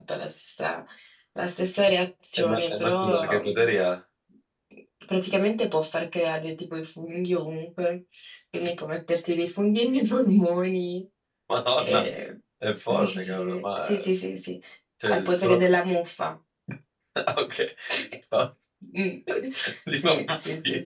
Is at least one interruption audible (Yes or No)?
Yes